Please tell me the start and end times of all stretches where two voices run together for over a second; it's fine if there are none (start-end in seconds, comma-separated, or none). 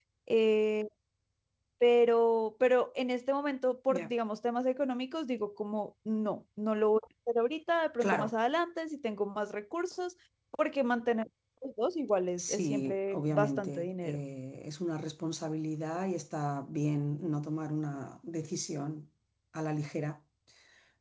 12.4-14.2